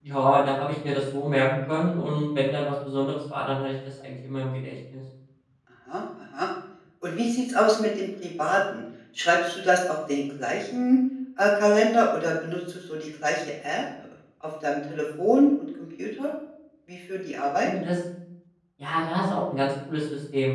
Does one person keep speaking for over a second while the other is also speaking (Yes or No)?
No